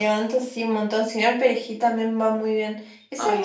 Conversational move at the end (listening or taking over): listening